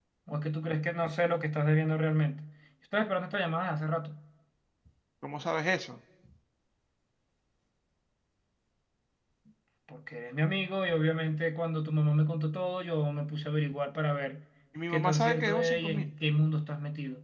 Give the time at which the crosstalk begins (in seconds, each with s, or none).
14.9 s